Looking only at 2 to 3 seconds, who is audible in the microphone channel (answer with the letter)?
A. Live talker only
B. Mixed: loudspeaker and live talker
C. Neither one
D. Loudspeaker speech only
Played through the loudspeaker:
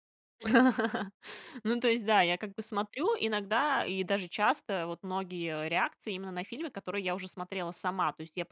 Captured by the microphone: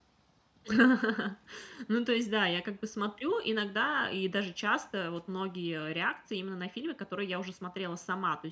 D